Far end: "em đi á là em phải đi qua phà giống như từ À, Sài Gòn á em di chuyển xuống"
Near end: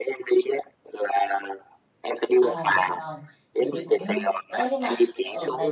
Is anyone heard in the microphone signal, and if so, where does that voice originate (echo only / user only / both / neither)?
both